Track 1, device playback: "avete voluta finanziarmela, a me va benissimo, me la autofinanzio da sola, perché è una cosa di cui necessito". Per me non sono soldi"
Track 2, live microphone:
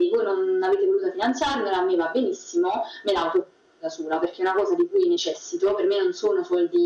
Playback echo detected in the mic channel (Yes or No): Yes